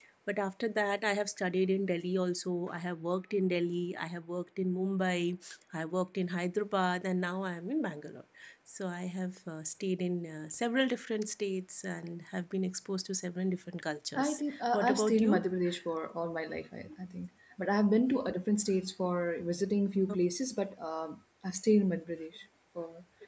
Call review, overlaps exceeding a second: present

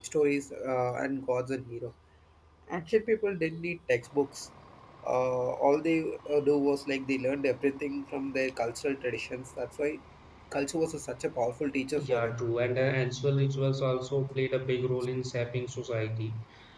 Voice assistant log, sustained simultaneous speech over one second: none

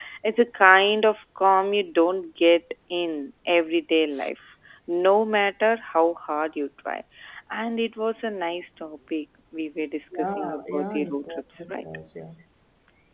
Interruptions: present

